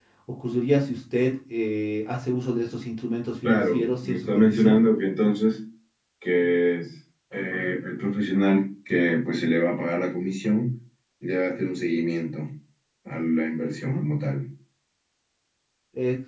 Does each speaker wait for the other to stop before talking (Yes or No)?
No